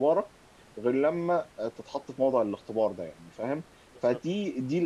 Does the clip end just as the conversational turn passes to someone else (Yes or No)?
No